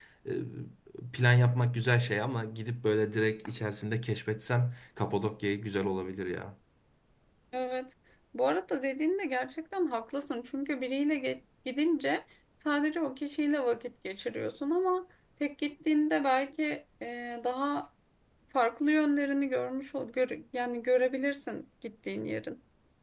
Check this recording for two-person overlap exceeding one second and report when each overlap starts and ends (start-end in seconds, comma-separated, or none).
none